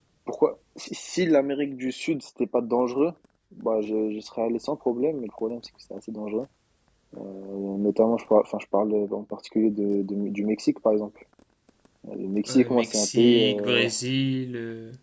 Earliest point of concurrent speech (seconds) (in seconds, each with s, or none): 12.5 s